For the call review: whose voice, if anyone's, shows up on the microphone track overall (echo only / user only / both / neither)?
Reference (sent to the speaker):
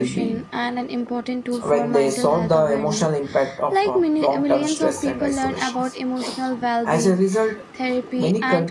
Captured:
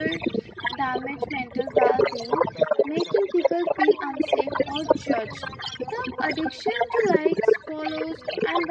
both